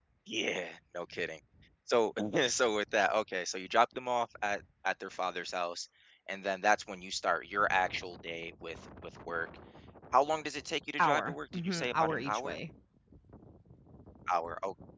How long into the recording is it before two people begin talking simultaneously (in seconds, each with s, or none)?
11.0 s